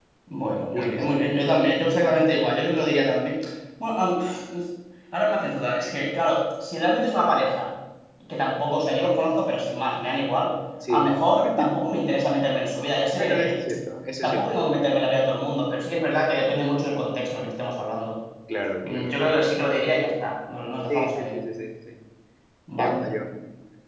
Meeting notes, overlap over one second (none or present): none